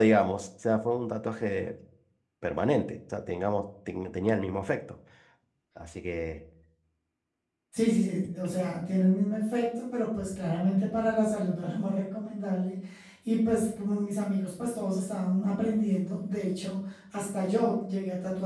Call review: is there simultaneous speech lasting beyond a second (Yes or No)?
No